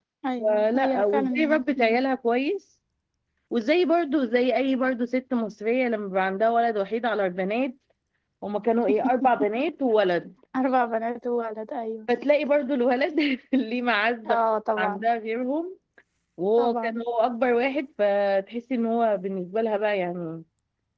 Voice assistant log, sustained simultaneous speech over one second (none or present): present